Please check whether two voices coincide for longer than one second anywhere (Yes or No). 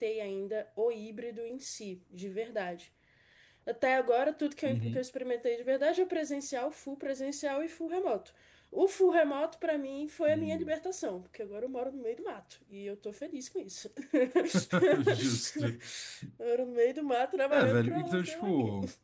Yes